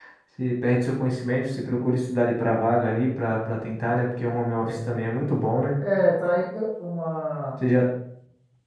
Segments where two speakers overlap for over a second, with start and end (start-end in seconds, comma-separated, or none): none